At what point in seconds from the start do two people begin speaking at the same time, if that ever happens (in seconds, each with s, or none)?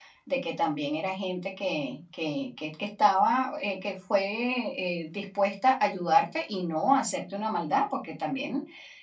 none